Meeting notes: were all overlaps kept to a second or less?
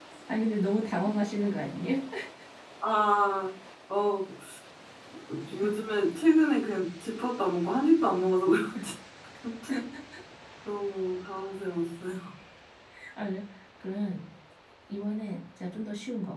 Yes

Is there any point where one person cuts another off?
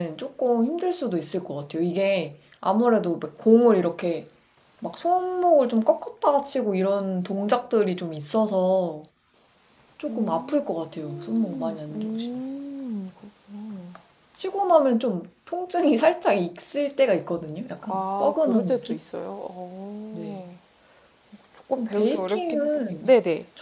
Yes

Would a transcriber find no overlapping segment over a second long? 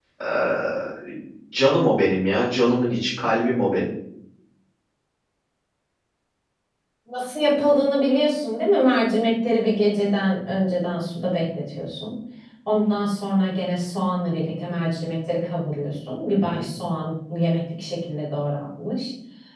Yes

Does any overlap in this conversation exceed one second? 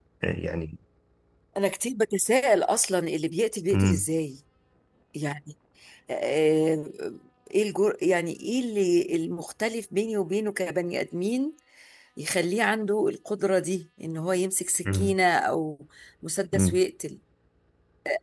No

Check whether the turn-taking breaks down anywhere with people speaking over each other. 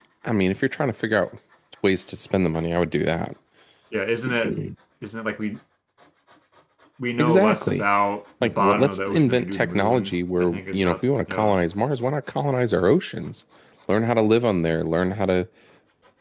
Yes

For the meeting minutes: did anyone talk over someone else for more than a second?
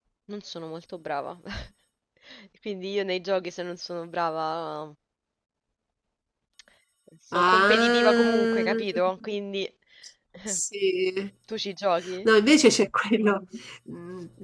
Yes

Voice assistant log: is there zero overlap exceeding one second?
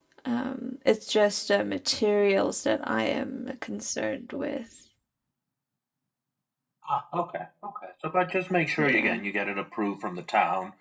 Yes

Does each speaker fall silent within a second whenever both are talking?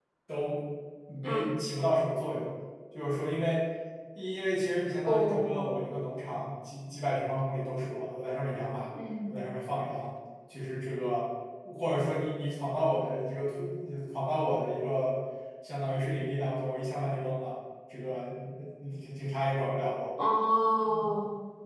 Yes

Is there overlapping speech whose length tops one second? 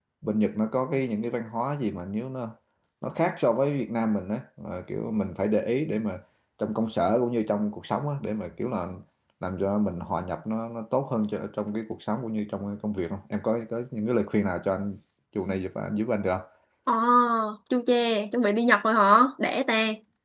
No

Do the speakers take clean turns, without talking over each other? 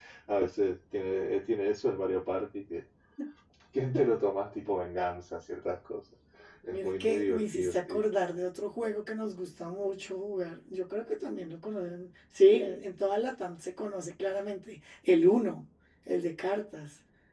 No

